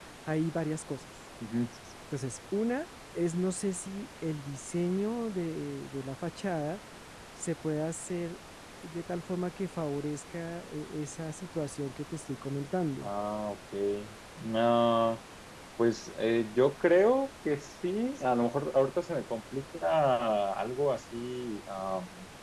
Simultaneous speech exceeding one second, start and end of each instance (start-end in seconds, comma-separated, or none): none